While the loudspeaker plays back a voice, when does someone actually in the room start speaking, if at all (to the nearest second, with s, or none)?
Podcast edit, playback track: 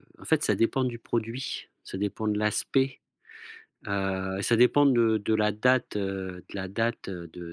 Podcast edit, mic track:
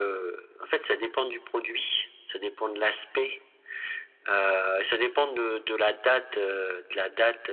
none